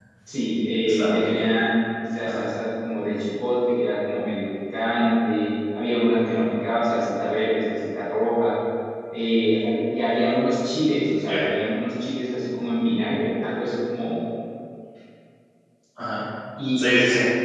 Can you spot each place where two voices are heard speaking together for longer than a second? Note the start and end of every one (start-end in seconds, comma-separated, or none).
none